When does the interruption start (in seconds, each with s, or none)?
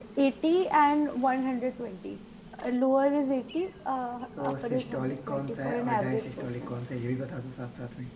4.4 s